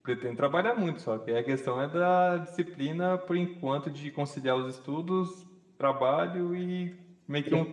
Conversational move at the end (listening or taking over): listening